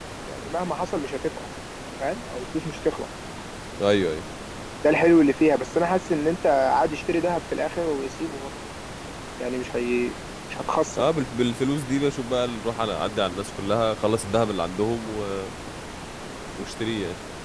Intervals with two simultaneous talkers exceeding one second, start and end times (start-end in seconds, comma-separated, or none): none